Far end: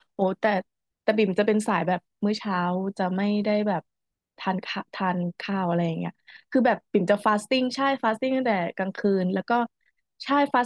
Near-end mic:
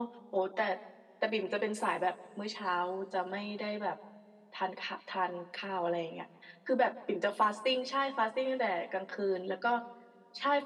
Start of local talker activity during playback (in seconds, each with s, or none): none